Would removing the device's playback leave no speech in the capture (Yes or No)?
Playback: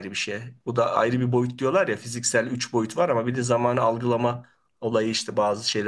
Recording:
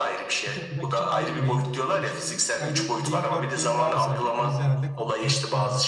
No